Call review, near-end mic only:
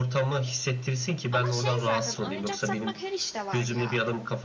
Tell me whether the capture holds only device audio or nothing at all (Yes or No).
No